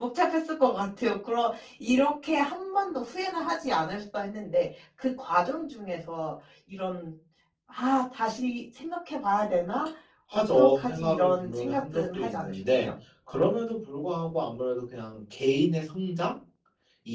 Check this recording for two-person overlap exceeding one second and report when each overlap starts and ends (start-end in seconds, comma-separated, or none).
10.3-12.9